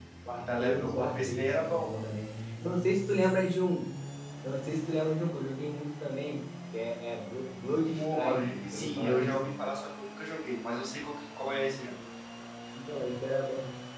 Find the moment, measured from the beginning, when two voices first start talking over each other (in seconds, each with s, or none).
0.6 s